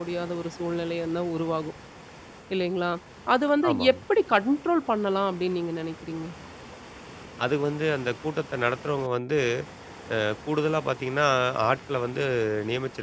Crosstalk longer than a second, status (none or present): none